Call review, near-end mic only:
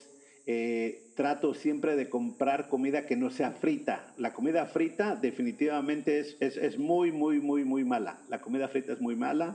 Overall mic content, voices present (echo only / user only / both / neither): echo only